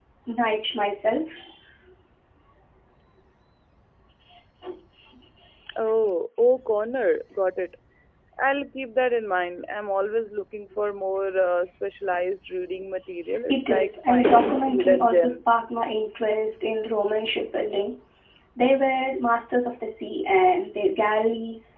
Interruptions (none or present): present